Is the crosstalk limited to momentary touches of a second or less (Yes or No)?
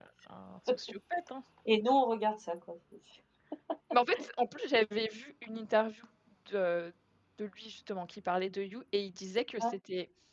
Yes